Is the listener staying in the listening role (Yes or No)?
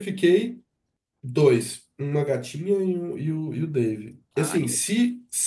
Yes